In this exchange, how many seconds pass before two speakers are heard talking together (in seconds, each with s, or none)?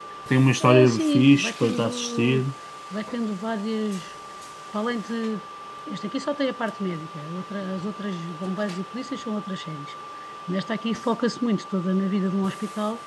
0.6 s